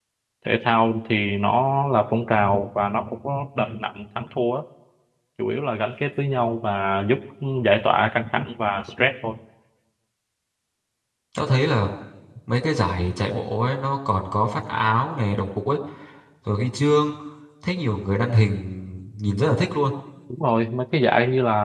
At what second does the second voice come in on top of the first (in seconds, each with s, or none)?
none